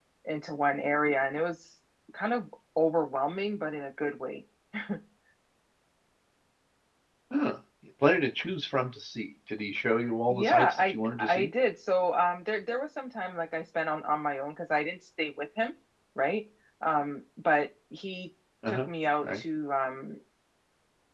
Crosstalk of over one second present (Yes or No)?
Yes